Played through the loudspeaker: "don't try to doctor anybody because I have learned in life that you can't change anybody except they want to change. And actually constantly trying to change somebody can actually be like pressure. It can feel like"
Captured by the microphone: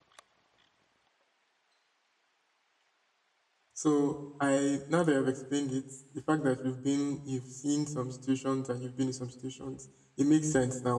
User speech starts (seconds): 3.7 s

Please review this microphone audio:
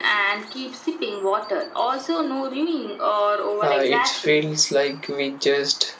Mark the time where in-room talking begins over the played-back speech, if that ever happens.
3.6 s

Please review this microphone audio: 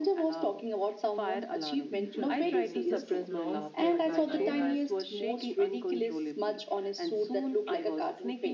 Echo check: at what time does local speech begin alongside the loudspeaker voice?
1.9 s

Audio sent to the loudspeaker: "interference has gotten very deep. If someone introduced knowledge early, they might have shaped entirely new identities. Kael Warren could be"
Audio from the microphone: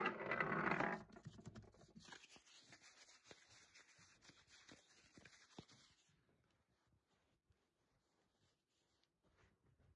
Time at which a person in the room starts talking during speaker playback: none

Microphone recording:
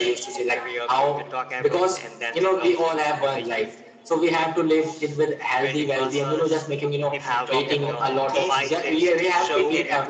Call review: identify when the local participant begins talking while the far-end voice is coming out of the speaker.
7.1 s

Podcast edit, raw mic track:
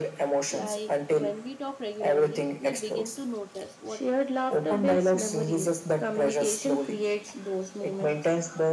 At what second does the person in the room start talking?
0.5 s

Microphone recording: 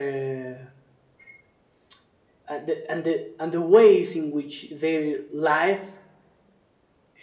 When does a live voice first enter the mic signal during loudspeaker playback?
none

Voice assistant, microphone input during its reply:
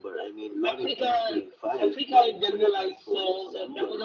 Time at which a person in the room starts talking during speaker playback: none

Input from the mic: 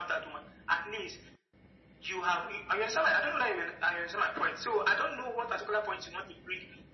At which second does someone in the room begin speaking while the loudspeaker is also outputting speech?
none

